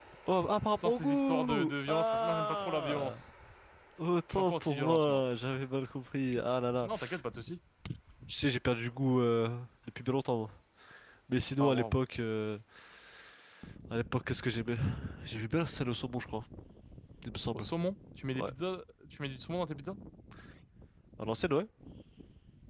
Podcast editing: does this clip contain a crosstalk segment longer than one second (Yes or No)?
Yes